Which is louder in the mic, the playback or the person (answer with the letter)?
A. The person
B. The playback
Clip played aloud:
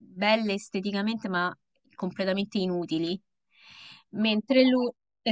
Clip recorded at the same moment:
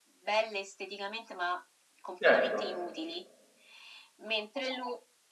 A